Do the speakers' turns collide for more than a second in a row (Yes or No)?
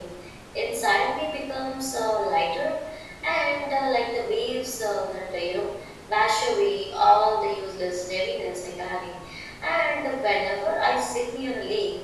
No